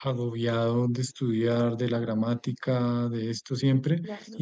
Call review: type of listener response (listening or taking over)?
listening